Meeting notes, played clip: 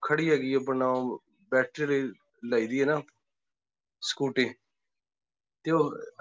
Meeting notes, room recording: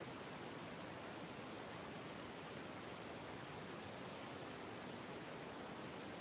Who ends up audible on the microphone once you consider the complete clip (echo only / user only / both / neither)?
neither